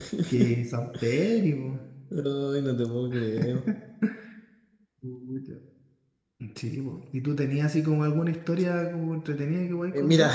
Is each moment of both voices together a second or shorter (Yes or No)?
Yes